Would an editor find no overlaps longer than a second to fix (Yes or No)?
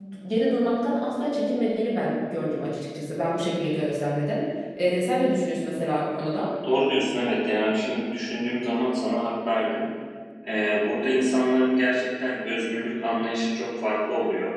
Yes